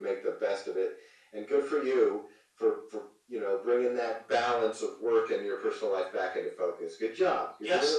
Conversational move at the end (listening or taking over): taking over